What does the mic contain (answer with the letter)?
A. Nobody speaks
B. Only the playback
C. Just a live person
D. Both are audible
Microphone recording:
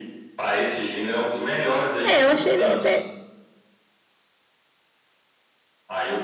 D